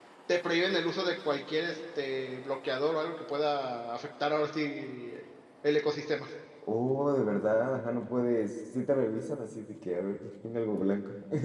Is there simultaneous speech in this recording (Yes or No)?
No